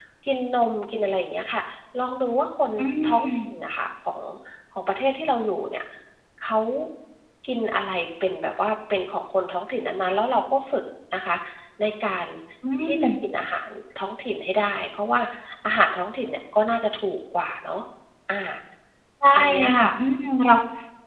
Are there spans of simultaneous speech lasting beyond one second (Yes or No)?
No